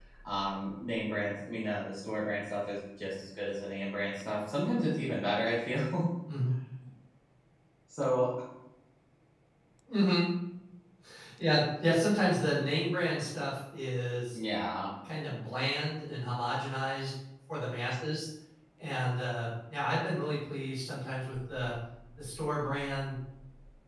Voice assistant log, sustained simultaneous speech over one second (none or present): none